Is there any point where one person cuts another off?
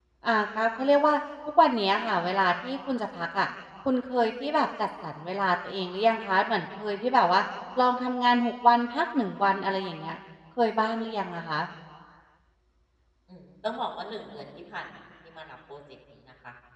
No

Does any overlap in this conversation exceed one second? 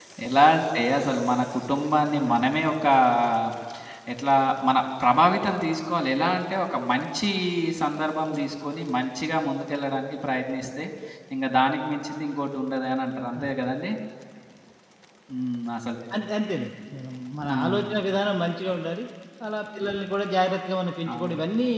No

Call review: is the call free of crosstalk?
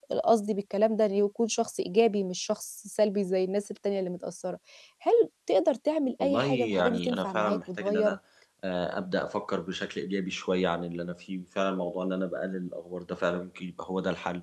No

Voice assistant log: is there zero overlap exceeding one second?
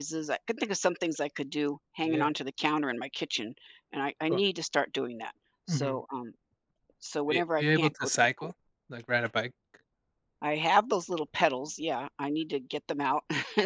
No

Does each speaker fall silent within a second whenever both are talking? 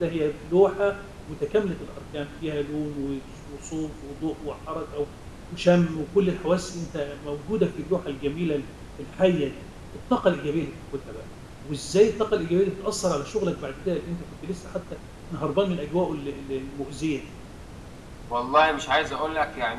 Yes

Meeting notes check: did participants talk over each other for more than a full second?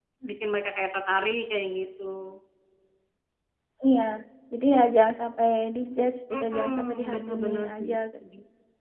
Yes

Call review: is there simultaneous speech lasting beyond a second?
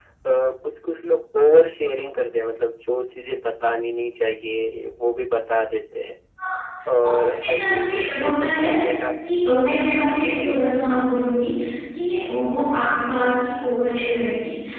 Yes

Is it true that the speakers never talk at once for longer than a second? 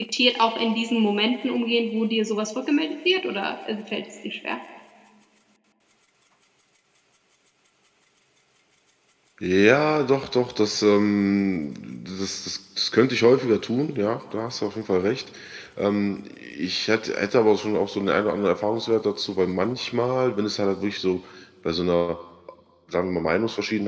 Yes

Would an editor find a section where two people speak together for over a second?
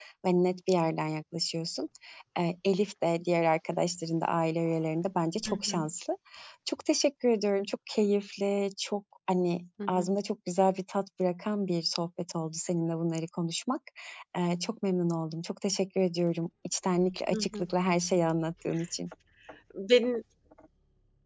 No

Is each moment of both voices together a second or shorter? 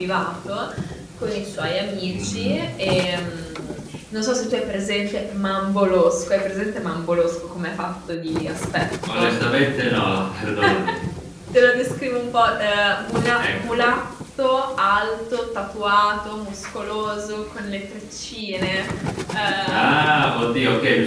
Yes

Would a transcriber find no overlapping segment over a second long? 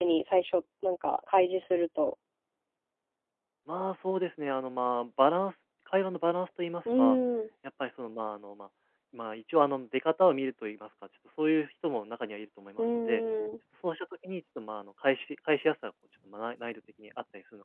Yes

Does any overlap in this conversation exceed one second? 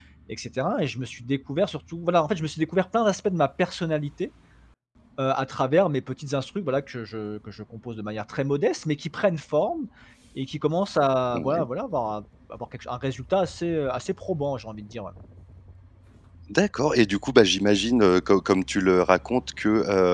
No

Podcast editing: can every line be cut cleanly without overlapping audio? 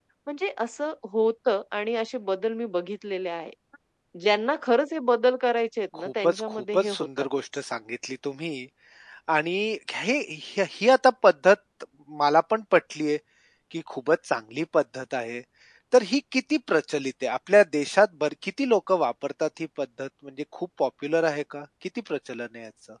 No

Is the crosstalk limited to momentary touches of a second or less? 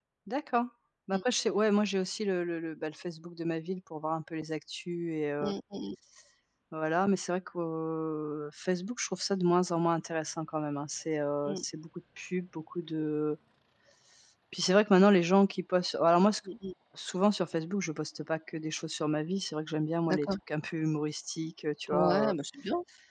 Yes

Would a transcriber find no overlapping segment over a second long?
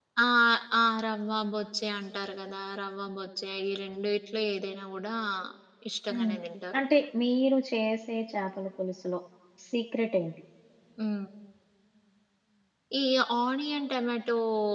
Yes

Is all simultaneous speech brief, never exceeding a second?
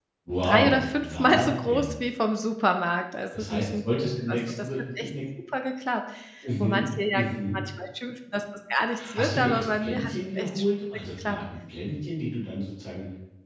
No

